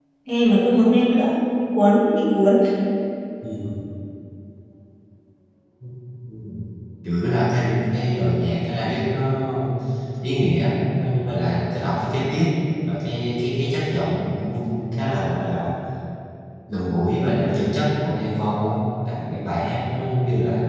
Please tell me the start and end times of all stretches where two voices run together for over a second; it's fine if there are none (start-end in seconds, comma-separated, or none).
none